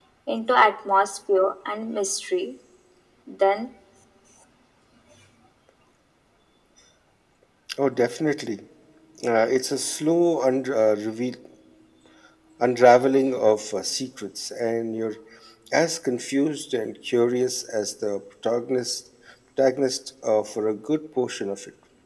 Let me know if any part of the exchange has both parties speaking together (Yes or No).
No